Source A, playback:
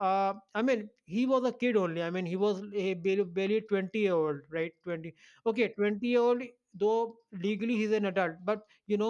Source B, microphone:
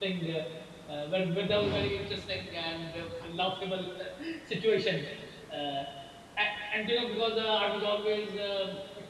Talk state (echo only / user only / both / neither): user only